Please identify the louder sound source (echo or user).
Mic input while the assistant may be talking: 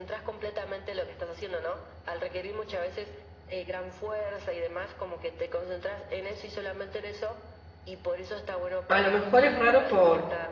user